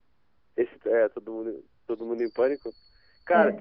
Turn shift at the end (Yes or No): No